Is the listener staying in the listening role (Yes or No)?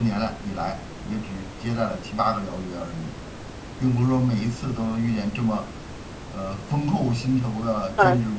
No